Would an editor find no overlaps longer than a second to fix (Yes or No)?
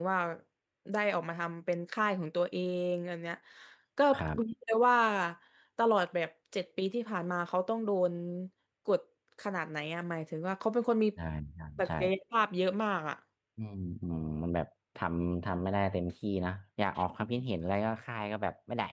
Yes